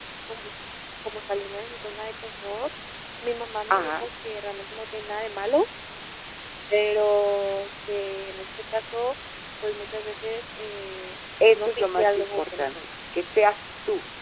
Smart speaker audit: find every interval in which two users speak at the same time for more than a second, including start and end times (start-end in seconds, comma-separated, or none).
11.5-12.7